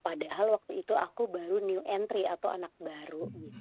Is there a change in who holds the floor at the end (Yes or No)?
Yes